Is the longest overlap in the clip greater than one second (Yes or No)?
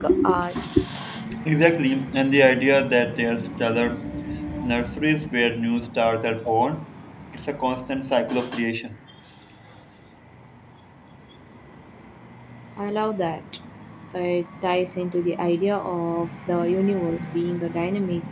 No